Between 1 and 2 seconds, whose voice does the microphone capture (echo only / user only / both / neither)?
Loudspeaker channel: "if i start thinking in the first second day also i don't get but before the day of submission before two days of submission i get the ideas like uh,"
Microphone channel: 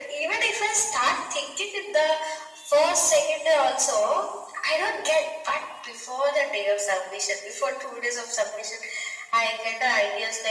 echo only